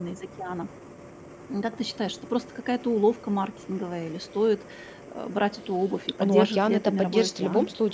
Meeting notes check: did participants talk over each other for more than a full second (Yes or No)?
Yes